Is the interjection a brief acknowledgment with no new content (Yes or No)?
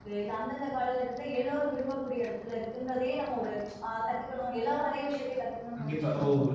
No